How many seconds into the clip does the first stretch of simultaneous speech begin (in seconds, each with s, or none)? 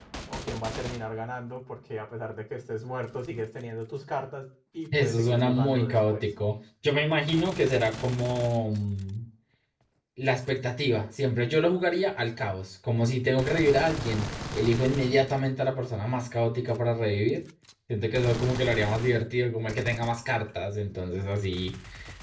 4.9 s